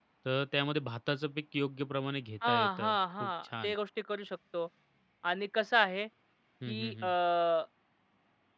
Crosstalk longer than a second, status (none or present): present